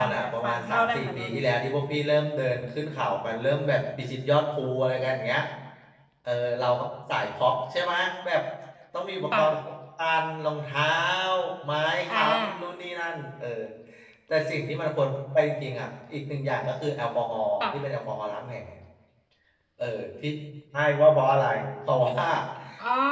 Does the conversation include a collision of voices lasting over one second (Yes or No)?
Yes